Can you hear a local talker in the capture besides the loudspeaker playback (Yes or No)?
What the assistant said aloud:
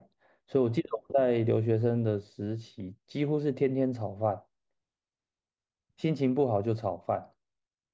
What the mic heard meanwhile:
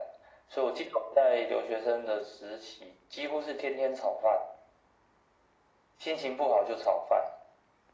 No